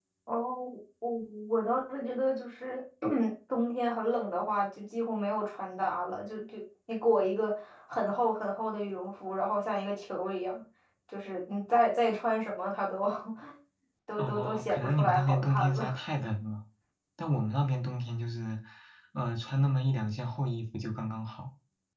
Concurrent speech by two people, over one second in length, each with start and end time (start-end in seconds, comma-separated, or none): 14.2-15.9